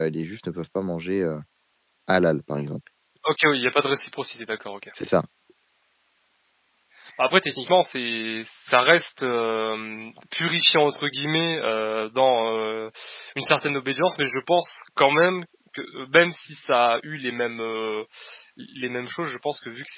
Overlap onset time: none

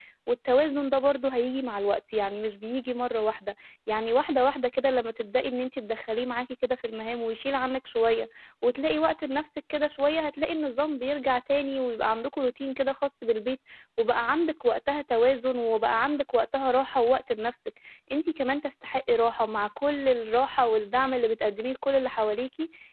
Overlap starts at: none

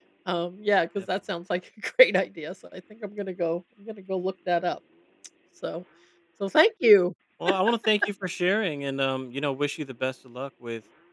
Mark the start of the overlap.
none

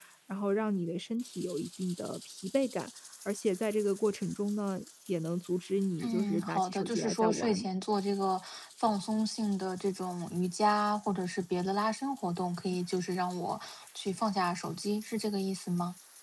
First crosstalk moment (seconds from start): 6 s

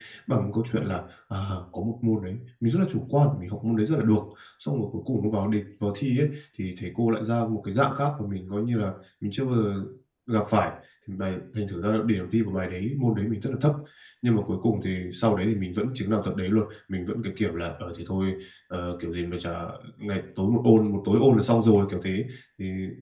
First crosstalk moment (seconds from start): none

